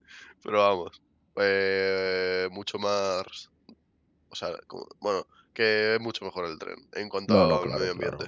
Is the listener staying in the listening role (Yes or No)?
No